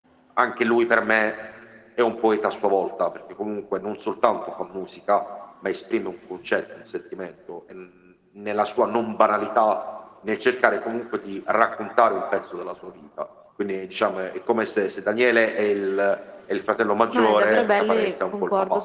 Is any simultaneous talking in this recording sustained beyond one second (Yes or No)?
Yes